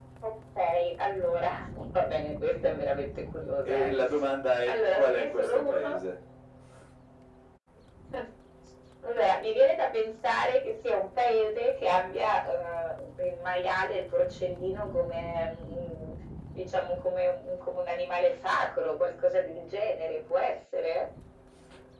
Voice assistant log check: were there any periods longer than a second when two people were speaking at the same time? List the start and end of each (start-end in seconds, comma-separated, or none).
4.7-5.9